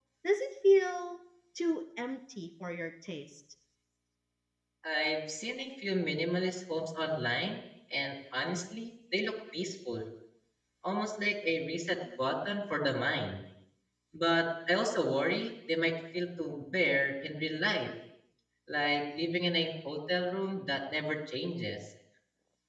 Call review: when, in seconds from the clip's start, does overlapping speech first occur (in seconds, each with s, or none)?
none